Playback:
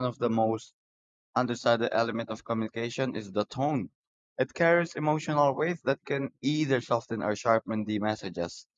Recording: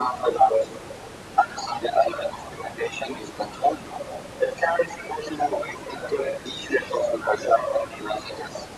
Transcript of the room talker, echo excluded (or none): none